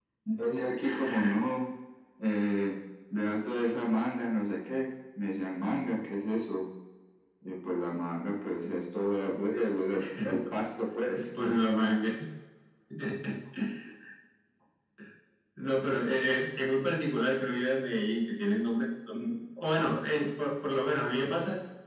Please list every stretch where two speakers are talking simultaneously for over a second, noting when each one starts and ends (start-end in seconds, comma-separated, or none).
none